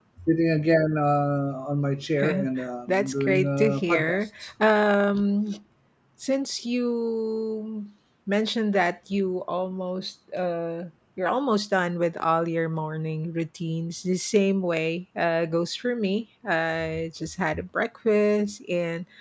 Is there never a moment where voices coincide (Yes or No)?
No